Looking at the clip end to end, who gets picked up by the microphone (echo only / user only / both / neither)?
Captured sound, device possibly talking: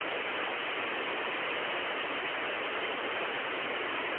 neither